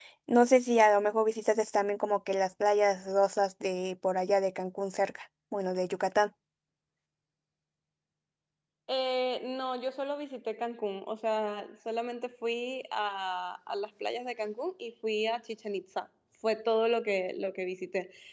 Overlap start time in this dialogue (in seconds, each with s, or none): none